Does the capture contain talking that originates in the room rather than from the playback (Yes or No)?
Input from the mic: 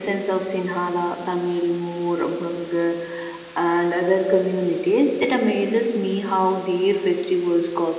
No